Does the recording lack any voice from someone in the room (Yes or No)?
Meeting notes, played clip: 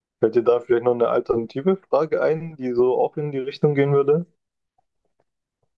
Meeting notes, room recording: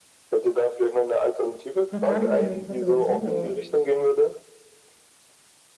No